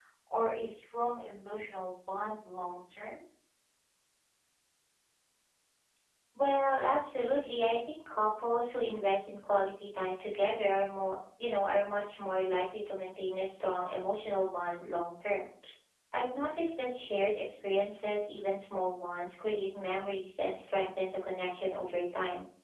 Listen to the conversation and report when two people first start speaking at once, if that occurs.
none

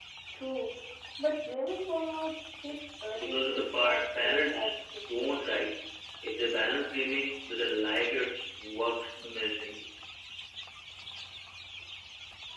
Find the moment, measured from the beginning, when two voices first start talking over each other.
3 s

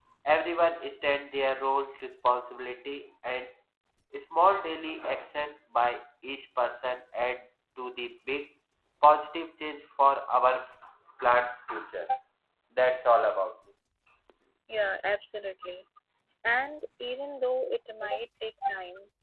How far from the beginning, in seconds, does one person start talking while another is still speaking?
none

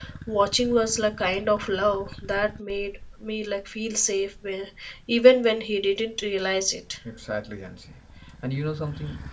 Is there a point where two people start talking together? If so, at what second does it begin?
none

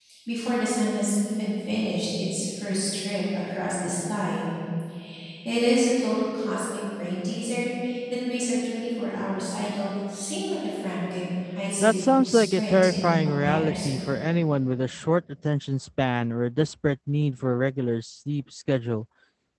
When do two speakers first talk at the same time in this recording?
12 s

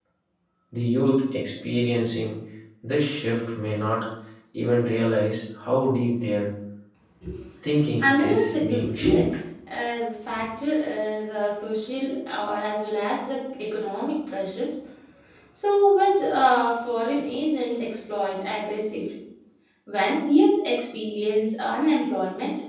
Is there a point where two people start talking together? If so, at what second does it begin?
8 s

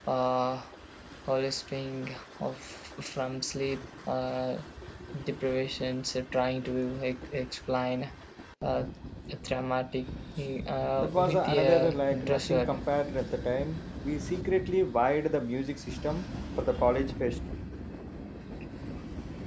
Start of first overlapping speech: 11 s

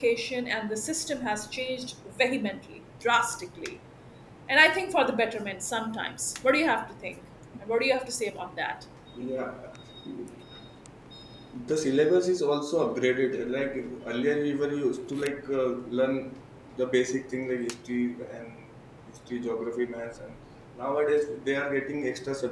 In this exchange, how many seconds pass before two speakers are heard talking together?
none

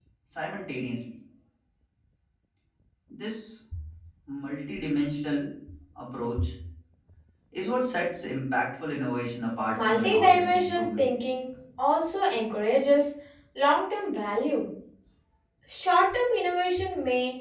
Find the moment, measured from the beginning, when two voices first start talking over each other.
10 s

